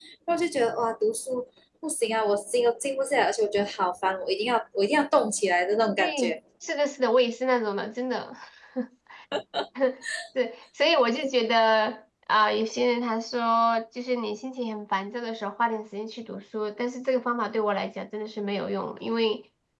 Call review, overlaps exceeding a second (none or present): none